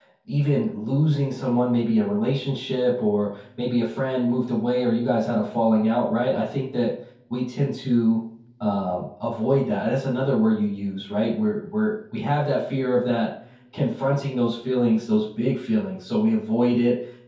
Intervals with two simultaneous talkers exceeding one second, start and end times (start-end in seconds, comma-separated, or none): none